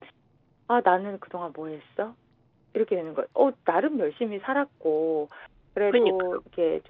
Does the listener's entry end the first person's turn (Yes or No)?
No